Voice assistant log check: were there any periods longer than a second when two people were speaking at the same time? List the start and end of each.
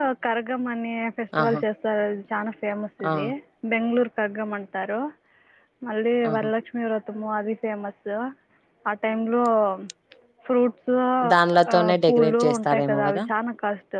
11.7-13.2

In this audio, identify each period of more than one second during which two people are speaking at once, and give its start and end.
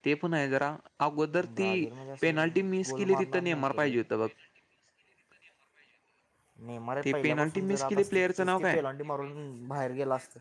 2.2-3.9, 7.0-8.8

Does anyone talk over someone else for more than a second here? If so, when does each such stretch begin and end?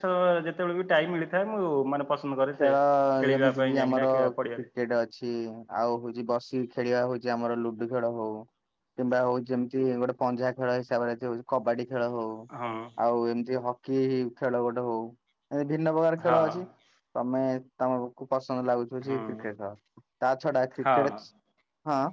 3.3-4.7

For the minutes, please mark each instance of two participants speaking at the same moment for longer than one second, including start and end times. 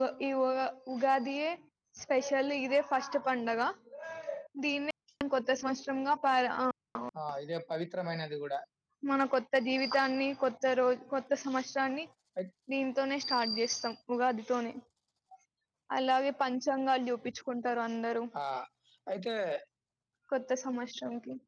none

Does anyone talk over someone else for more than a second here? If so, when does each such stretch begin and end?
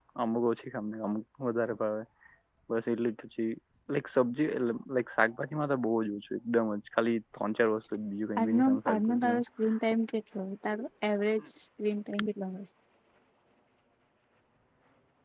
8.4-9.7

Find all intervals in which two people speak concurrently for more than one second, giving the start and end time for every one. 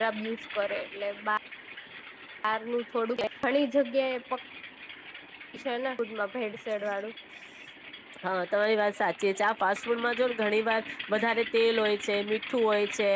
none

